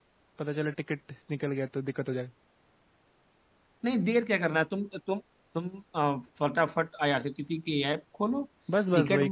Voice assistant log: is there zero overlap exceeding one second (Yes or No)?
Yes